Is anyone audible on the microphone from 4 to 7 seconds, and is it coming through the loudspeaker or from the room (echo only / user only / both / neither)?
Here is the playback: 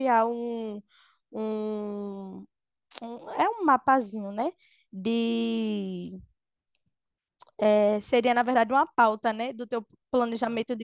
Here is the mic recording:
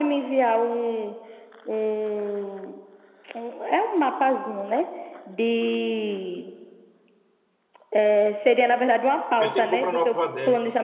echo only